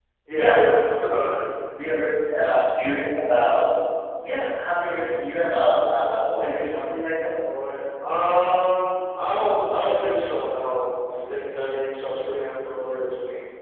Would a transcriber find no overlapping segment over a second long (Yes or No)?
Yes